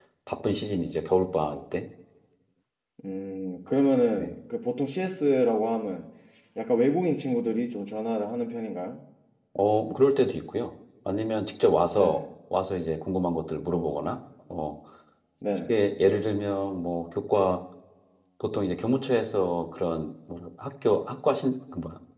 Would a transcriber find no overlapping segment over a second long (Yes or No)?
Yes